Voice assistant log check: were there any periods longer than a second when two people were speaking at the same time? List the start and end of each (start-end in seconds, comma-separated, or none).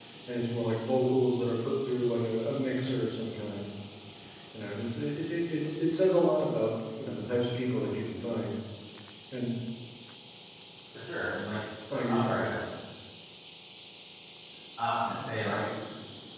none